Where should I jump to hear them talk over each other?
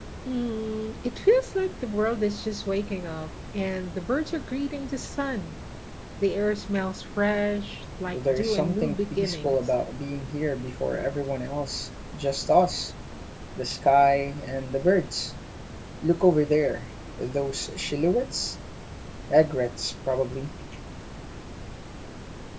8.1 s

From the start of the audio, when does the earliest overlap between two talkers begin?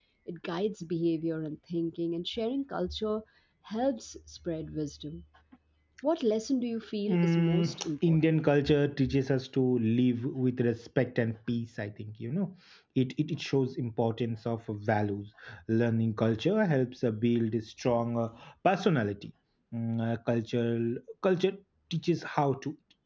7.1 s

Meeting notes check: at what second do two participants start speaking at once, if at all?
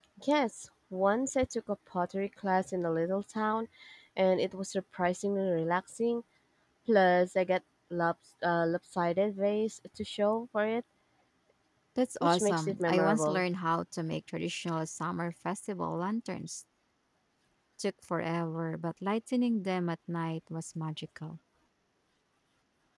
12.2 s

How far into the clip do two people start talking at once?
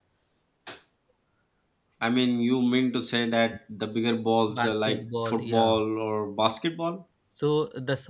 4.5 s

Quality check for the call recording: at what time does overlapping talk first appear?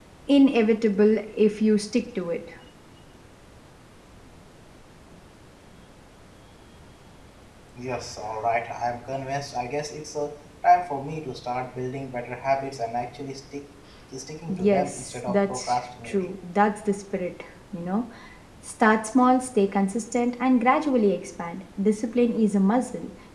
14.5 s

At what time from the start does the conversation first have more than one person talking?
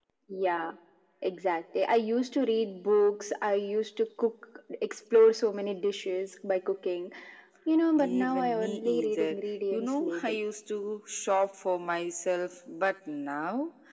8.0 s

